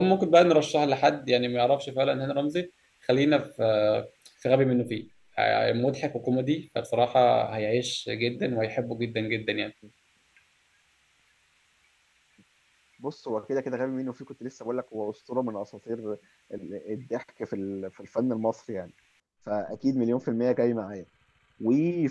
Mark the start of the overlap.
none

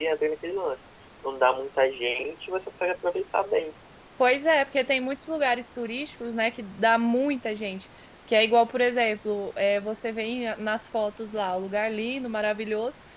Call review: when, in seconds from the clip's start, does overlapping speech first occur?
none

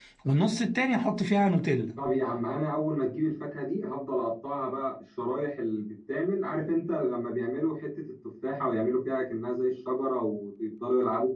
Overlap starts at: none

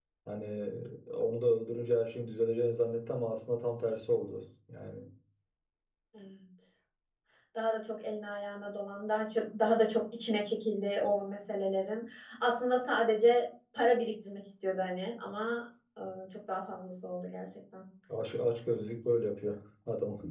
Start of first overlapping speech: none

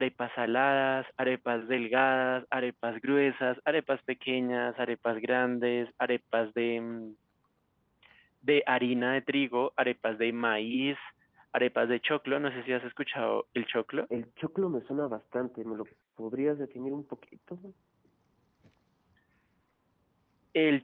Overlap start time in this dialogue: none

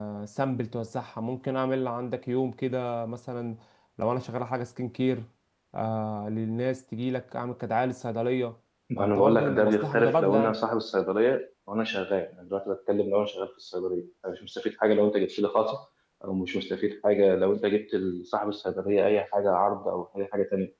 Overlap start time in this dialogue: 9.0 s

